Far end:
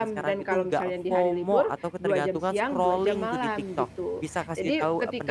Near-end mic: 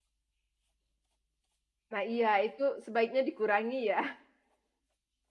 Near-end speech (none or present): present